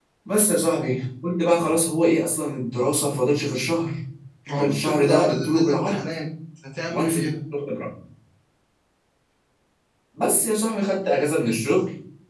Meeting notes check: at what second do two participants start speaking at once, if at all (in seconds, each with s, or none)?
4.6 s